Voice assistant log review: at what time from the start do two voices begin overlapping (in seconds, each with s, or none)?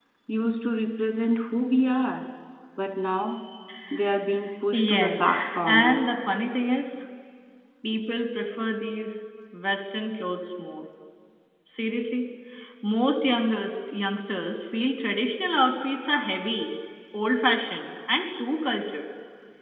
4.7 s